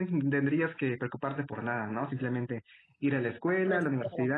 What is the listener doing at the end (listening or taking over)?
listening